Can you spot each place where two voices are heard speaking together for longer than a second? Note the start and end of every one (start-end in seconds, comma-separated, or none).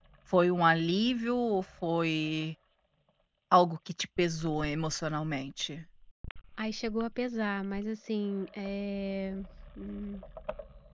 none